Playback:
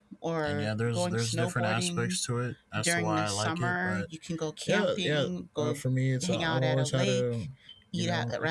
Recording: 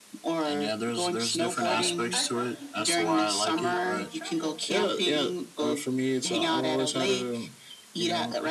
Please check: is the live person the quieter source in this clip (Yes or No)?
Yes